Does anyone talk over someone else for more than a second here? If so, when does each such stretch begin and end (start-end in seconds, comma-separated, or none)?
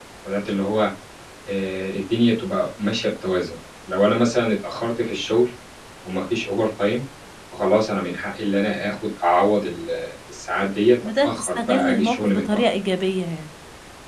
11.2-12.6